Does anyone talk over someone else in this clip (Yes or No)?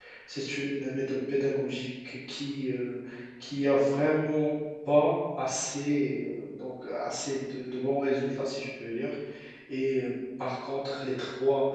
No